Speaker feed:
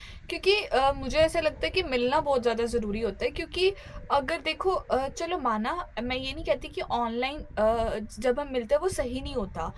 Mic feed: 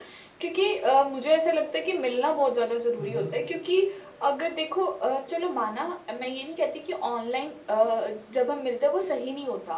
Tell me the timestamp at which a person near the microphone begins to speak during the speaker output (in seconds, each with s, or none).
3.0 s